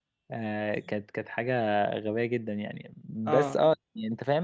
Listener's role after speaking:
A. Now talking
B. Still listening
B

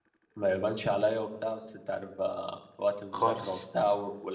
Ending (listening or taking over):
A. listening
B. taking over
A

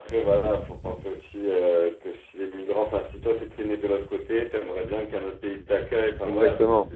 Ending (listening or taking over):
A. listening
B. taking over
A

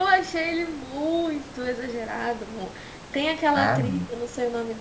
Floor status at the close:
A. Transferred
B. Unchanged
B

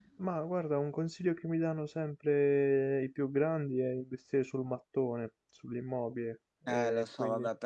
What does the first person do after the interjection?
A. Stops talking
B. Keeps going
A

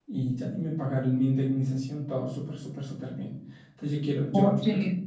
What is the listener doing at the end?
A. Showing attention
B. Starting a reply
A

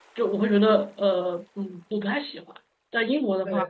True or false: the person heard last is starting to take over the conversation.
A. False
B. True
A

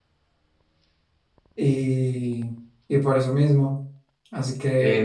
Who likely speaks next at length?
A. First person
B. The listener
B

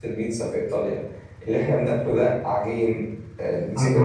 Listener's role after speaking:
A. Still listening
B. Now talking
B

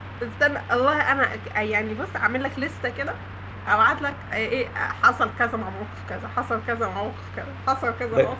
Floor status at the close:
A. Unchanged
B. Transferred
B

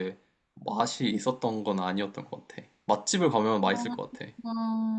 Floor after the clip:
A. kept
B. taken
B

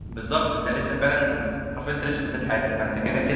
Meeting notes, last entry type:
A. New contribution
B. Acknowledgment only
B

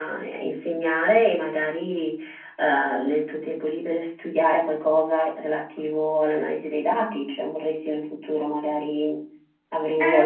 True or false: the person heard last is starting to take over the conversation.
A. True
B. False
A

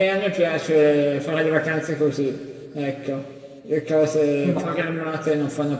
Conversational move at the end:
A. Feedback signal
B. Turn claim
A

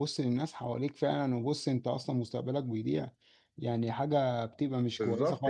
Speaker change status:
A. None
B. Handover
B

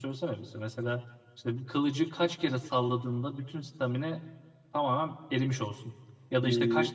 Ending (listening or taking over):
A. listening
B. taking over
A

